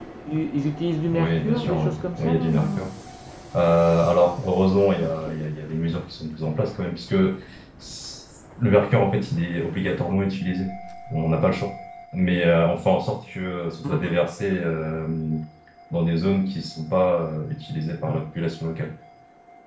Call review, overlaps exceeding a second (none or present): present